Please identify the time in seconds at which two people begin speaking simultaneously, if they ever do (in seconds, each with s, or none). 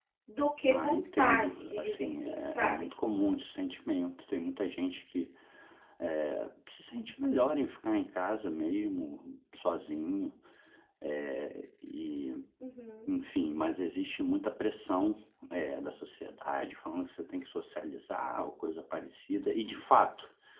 0.7 s